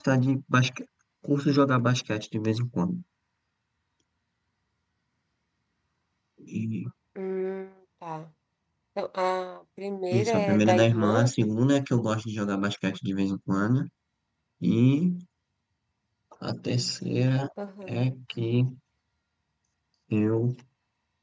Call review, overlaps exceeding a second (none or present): present